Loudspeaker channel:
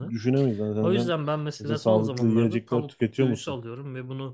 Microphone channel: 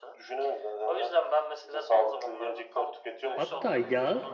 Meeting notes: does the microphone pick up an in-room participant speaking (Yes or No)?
Yes